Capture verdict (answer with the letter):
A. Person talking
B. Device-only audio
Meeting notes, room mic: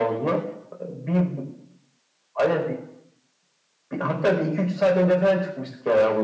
B